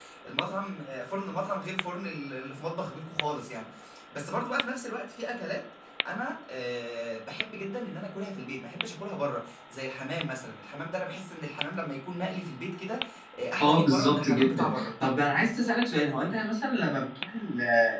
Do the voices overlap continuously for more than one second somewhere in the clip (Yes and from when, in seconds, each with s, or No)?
Yes, from 13.6 s